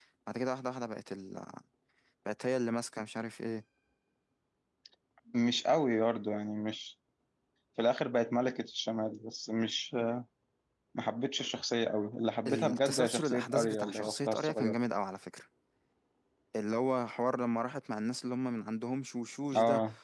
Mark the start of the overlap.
12.5 s

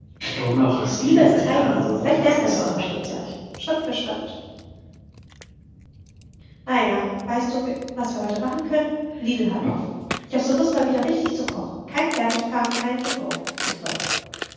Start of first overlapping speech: 1.0 s

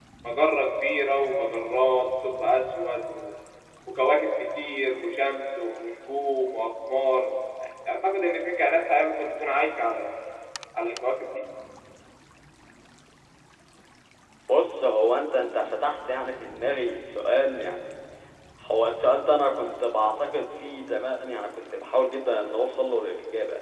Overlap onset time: none

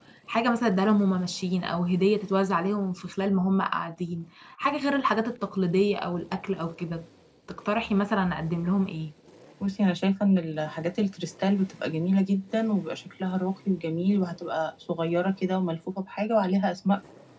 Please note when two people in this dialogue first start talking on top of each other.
none

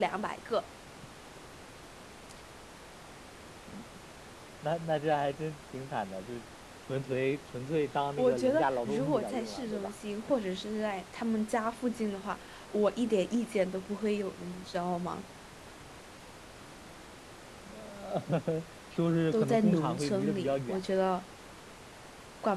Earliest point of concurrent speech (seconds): 8.2 s

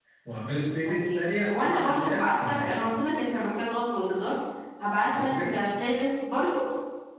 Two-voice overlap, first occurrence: 0.8 s

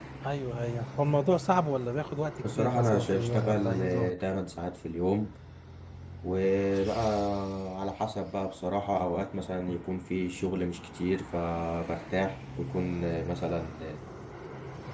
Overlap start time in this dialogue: 2.4 s

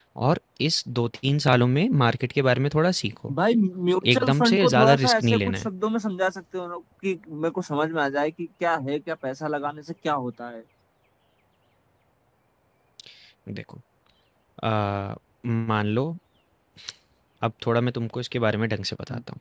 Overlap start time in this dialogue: 4.0 s

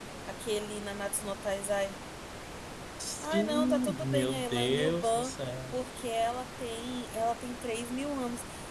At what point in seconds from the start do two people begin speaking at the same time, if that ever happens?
3.2 s

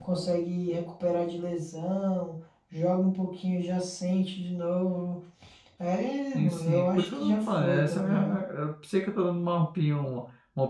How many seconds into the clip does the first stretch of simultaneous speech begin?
6.3 s

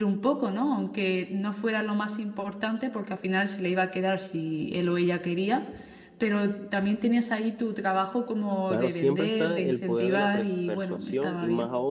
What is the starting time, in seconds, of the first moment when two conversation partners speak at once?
8.7 s

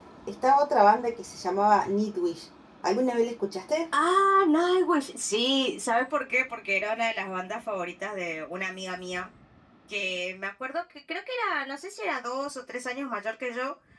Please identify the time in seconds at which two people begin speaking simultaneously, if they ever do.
none

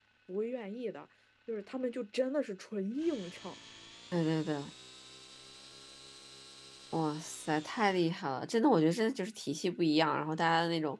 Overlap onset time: none

